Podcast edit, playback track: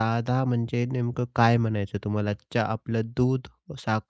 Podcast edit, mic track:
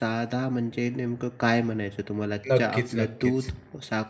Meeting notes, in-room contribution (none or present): present